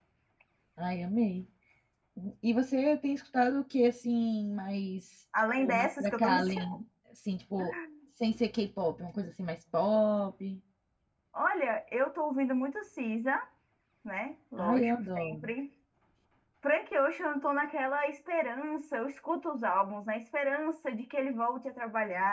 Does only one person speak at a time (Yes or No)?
No